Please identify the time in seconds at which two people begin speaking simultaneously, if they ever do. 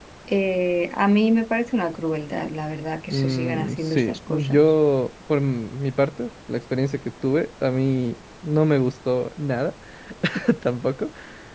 3.1 s

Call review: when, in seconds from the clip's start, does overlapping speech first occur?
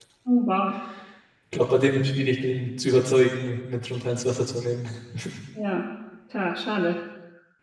none

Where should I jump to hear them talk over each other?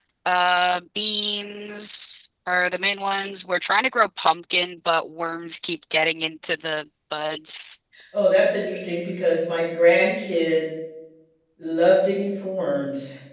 none

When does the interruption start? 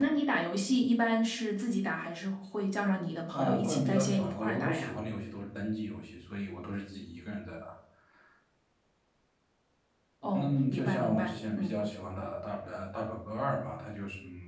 3.3 s

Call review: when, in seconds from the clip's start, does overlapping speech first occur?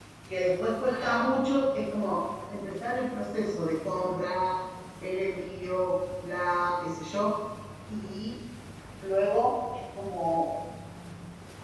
none

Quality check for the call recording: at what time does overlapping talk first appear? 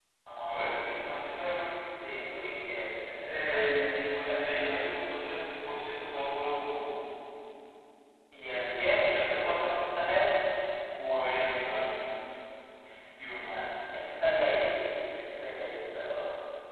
3.0 s

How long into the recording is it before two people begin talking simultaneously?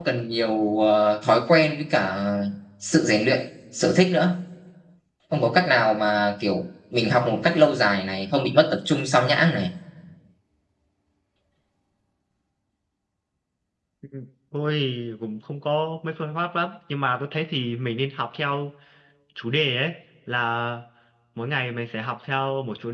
none

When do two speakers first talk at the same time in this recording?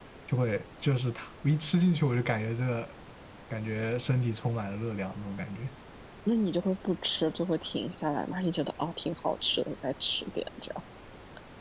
none

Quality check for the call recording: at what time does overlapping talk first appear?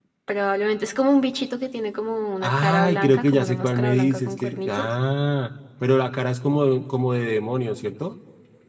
2.4 s

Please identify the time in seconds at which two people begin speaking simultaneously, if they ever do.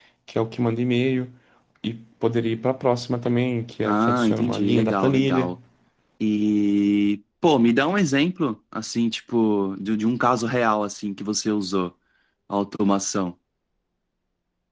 3.9 s

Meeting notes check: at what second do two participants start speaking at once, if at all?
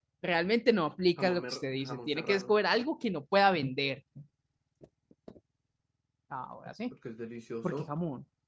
1.2 s

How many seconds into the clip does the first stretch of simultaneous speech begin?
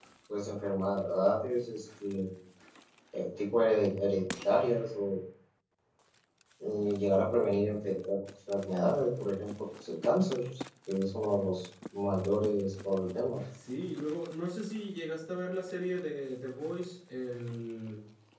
none

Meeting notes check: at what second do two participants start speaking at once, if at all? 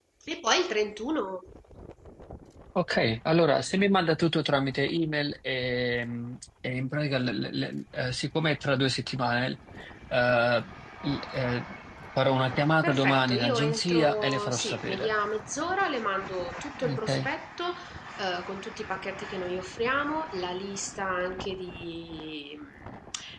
12.8 s

